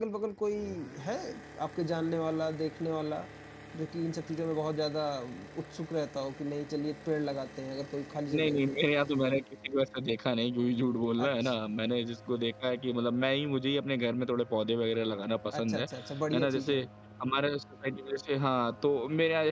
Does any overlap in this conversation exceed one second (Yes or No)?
No